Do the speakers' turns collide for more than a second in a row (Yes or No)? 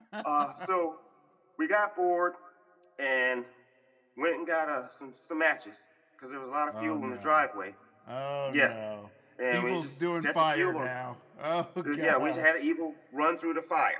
Yes